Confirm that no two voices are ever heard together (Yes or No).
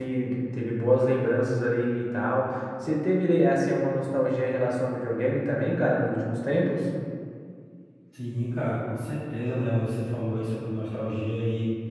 Yes